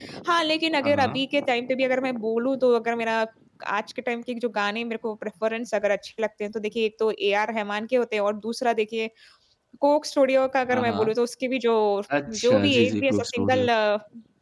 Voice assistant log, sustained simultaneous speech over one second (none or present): present